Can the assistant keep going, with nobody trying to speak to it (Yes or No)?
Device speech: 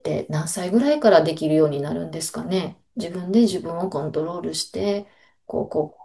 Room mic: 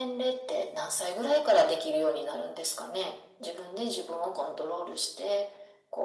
Yes